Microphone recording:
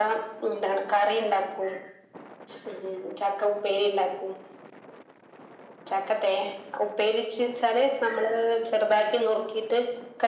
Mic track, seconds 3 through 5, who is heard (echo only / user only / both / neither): echo only